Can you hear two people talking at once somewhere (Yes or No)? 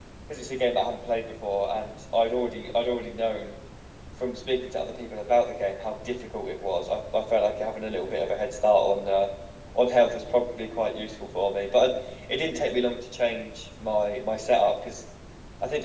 No